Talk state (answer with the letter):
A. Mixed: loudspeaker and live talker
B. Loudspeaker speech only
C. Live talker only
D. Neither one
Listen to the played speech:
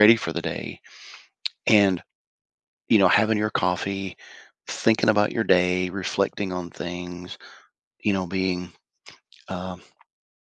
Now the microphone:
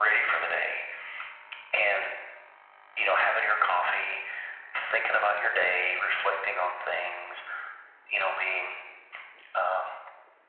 B